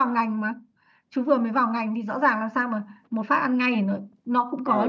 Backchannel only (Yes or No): No